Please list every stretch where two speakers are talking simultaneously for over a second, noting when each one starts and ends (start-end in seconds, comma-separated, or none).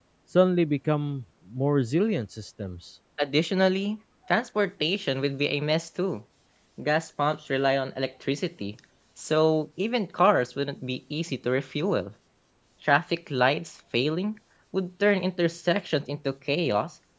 none